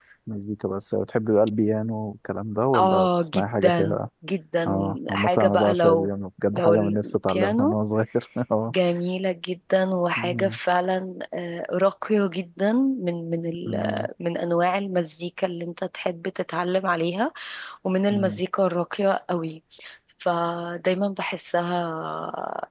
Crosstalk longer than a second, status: present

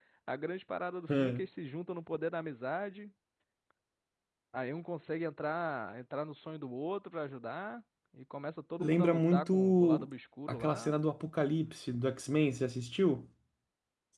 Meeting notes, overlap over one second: present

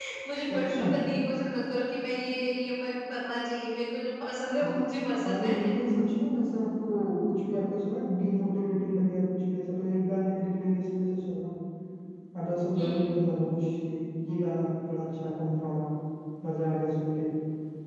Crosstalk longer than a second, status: none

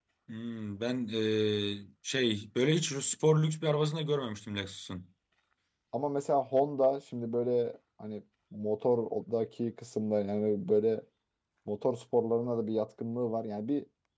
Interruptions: none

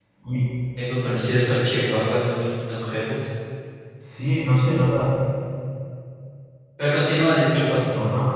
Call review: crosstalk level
none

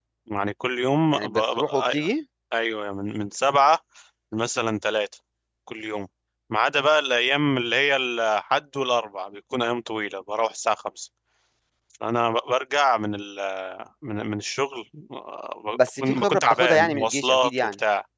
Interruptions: present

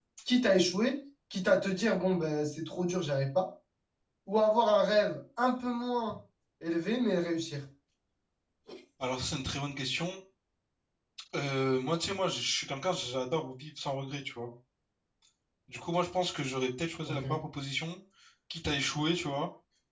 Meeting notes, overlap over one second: none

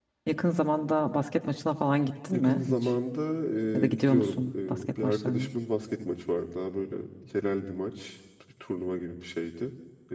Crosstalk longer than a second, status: present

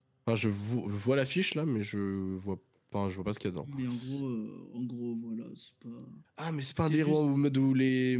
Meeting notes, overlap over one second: none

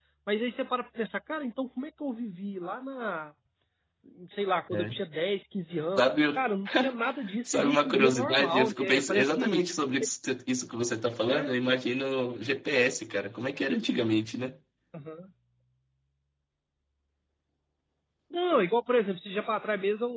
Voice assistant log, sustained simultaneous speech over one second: present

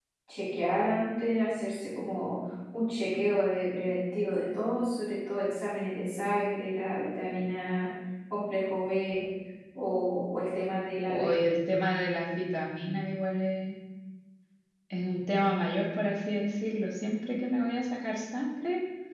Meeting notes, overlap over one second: none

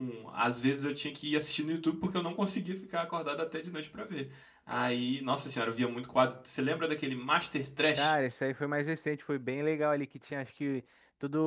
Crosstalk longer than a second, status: none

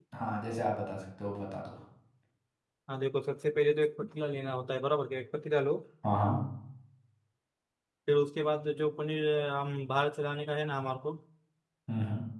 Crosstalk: none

